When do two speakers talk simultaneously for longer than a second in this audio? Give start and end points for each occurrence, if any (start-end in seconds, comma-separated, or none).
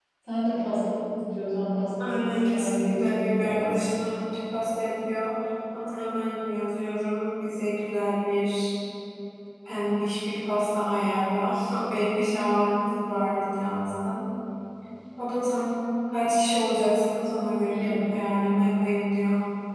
2.0-3.9